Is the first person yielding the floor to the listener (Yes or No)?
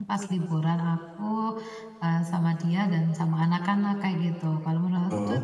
No